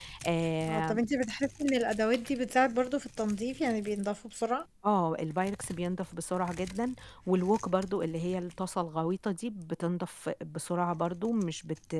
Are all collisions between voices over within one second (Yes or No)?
Yes